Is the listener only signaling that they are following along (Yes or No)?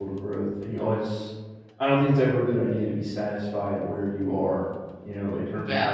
Yes